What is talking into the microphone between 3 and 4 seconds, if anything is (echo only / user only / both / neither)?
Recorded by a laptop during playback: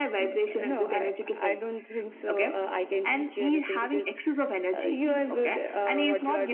echo only